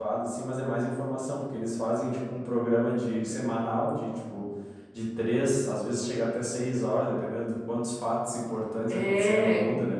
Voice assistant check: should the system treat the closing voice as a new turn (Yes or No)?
No